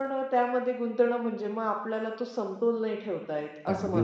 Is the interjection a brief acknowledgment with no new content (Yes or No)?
No